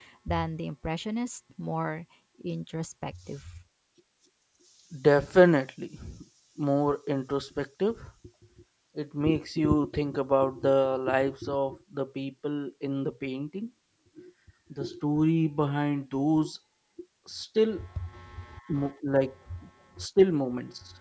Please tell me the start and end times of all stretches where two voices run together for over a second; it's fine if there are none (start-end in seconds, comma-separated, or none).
none